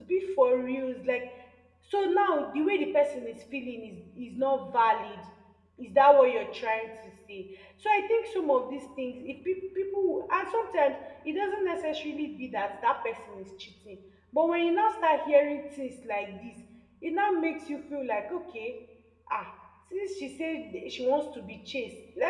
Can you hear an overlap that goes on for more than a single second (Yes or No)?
No